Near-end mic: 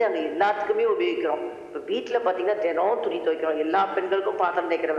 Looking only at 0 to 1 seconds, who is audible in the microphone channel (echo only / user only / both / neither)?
echo only